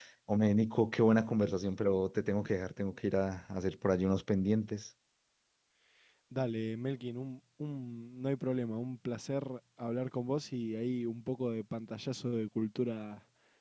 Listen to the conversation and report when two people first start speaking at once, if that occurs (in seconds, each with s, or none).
none